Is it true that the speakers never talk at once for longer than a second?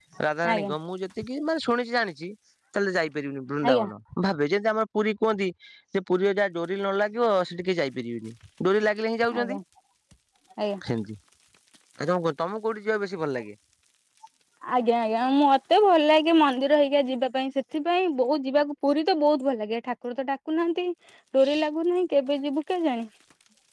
Yes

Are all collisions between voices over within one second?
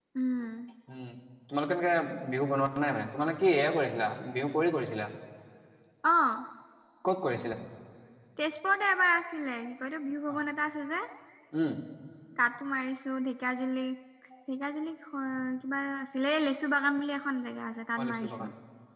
Yes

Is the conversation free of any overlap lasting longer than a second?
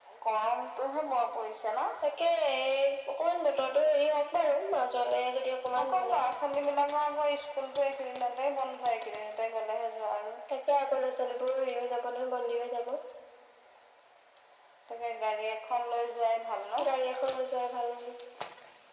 Yes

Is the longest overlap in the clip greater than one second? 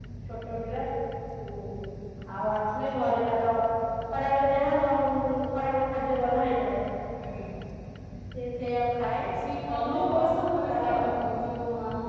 Yes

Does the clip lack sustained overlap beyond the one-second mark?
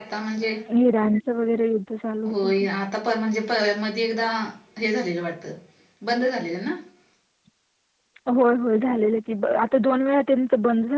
Yes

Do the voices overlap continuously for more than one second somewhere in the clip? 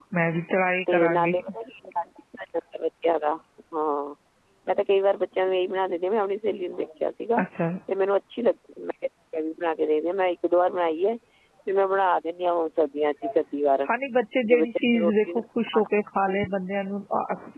Yes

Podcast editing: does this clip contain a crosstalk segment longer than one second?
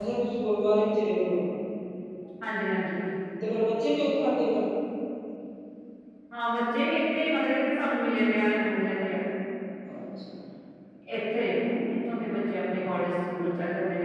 No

